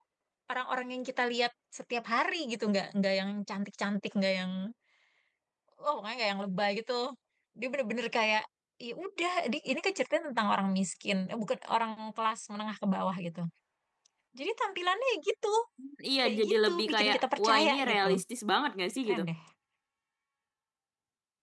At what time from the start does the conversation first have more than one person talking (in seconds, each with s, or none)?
16.2 s